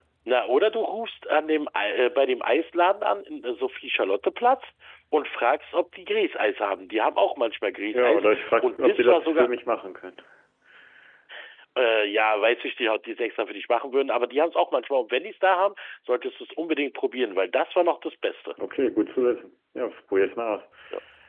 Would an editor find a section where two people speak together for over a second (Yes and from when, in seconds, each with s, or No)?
Yes, from 7.9 s